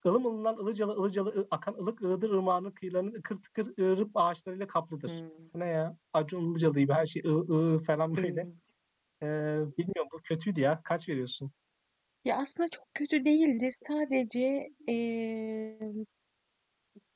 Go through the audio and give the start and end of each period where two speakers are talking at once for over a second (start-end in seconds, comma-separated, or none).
none